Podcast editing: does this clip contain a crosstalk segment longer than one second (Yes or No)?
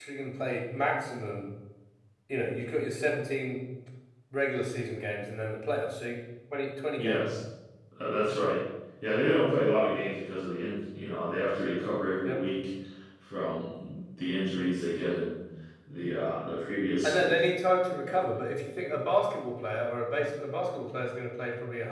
No